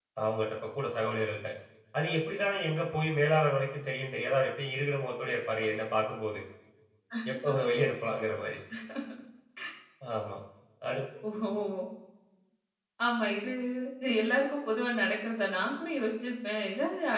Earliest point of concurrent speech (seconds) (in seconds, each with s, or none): none